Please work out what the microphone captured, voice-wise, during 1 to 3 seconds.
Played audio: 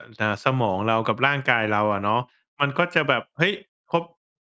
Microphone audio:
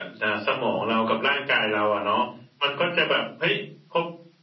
echo only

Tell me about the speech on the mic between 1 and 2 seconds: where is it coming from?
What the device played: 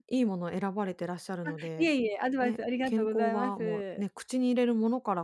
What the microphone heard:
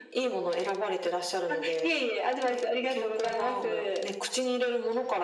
echo only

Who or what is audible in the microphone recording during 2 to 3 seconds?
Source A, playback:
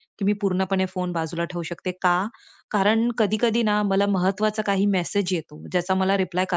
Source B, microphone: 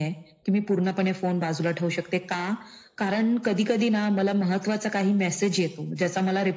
echo only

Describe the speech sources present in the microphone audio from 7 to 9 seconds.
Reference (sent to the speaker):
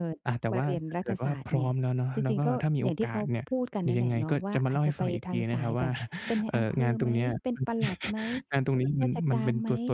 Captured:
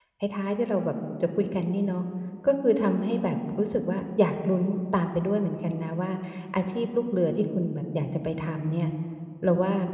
user only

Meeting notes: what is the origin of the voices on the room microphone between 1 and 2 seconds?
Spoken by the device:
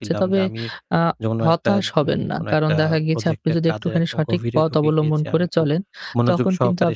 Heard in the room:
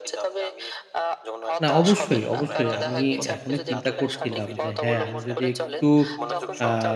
both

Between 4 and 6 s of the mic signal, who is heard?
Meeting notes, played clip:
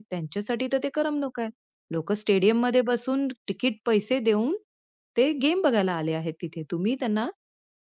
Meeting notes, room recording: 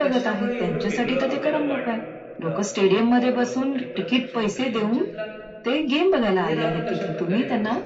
both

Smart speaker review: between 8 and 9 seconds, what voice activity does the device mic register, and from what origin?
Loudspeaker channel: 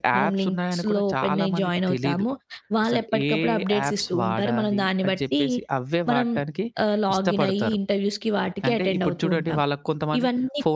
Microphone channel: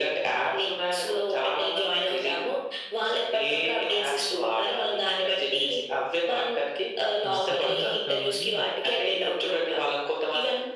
both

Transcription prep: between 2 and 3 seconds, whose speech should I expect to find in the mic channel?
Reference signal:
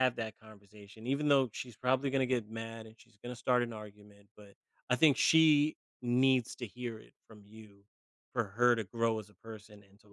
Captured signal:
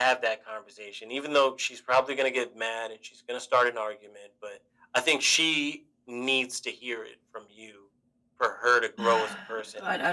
echo only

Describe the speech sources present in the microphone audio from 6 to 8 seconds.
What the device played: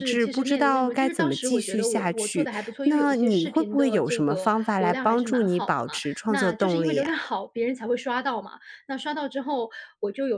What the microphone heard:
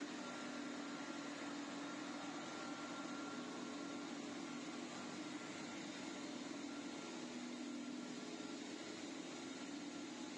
neither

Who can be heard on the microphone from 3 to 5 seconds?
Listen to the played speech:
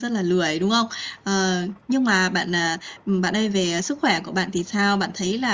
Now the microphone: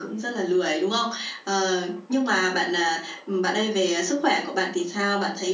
echo only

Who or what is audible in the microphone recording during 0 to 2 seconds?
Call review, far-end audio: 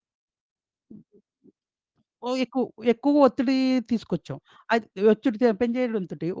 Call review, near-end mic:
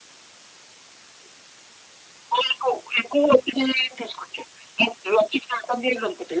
neither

